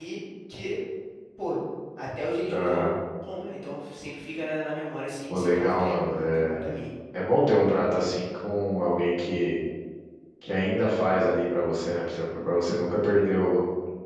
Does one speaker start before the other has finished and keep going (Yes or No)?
Yes